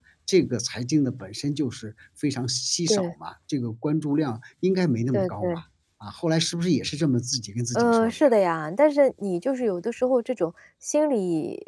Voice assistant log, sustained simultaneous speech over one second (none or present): none